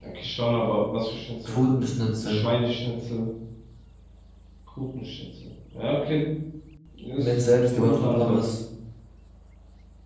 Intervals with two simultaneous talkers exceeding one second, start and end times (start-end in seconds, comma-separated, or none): 7.2-8.5